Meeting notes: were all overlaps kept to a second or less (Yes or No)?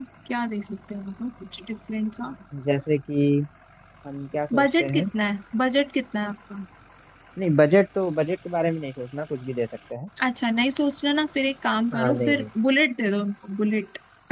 Yes